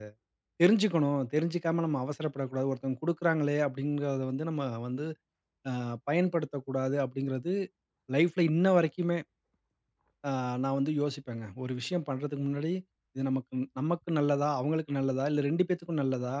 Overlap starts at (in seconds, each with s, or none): none